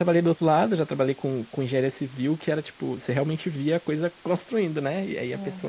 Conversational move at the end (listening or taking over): listening